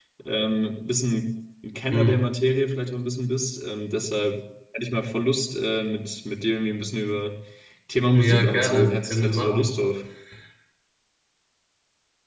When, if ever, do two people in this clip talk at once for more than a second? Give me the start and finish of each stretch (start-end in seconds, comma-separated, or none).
8.1-9.7